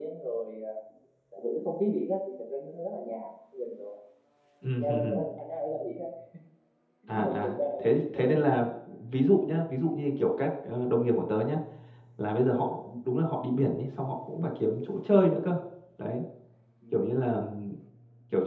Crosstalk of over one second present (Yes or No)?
Yes